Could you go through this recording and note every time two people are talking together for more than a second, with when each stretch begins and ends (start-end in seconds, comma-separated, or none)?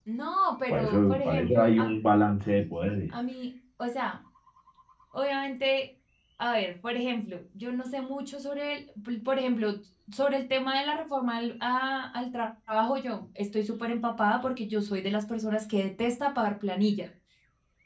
0.7-1.9